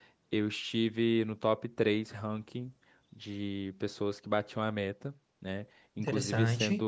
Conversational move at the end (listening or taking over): listening